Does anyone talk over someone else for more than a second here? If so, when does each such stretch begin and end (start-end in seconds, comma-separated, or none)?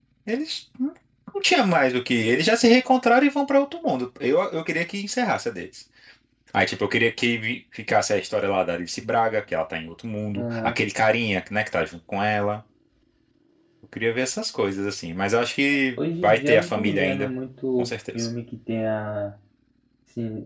16.0-17.3